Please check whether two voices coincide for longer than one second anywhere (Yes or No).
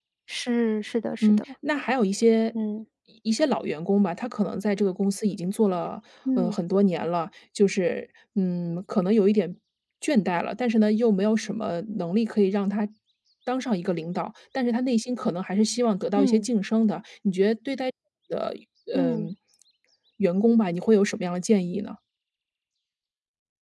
No